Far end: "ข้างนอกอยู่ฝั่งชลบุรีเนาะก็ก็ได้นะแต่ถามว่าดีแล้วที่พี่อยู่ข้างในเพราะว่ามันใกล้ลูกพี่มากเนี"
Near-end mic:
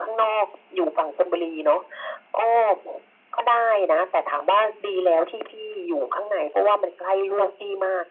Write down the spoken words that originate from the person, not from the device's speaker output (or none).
none